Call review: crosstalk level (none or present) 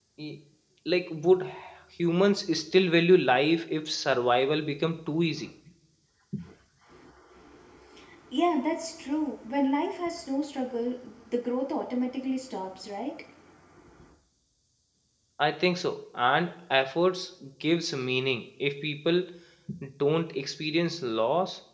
none